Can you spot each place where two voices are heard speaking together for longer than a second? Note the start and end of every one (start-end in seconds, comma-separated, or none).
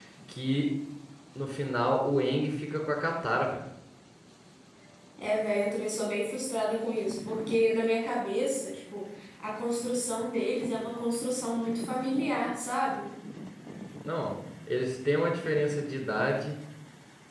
none